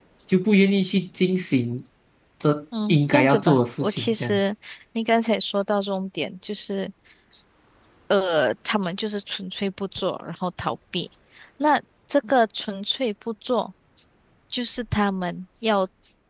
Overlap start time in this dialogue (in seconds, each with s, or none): 2.9 s